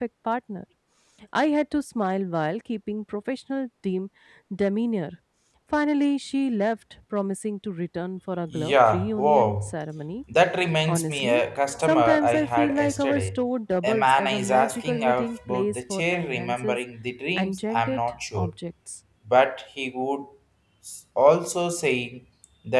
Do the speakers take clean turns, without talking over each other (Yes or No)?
No